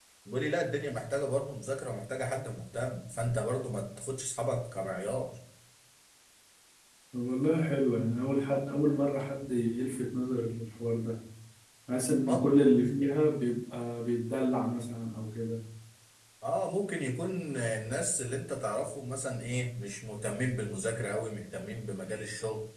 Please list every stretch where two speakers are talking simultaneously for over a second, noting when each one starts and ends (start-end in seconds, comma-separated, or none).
none